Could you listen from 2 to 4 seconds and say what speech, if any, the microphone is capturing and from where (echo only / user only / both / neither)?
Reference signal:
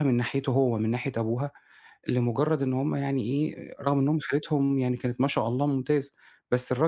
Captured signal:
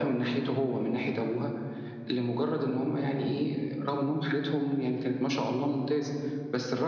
echo only